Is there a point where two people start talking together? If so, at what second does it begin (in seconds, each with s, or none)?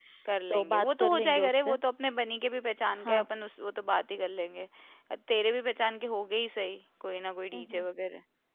0.5 s